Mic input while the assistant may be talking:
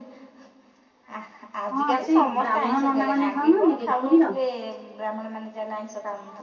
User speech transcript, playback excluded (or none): ହଁ ସେଇ ବ୍ରାହ୍ମଣ ନନା ମାନେ ଖାଉନାହାନ୍ତି କି ପୁରୀର